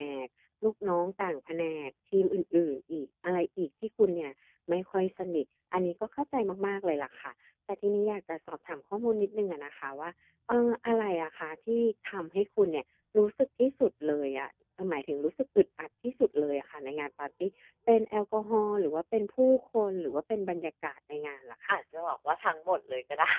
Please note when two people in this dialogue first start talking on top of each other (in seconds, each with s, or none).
none